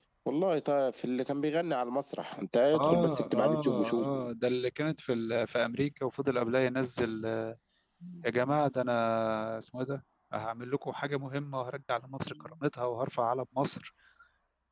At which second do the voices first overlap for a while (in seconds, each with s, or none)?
2.7 s